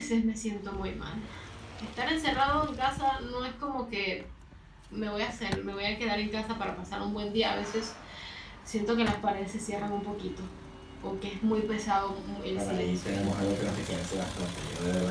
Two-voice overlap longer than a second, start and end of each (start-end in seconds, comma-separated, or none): 12.5-14.0